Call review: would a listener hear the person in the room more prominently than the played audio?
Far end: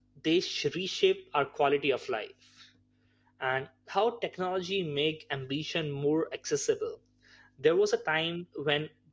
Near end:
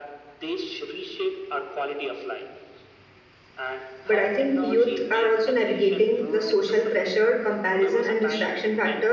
Yes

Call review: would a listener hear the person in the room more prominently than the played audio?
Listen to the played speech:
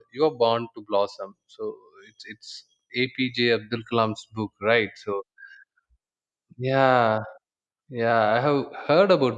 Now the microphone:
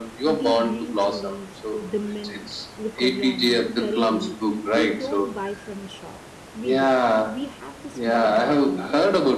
No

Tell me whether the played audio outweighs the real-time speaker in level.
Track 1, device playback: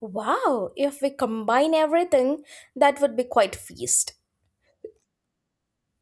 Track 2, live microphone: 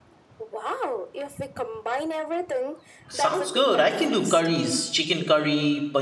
No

